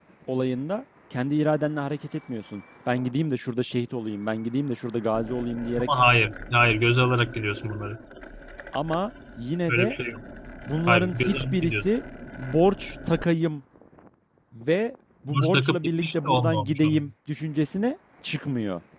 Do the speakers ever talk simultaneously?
Yes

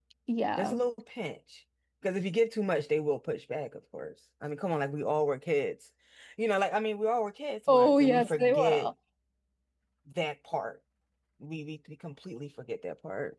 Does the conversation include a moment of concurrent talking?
Yes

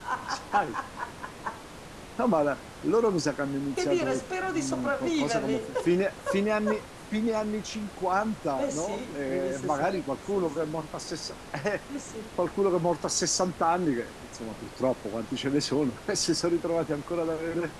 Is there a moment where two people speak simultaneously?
Yes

